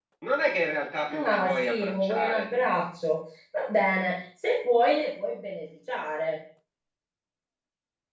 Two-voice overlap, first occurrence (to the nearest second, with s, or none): 1 s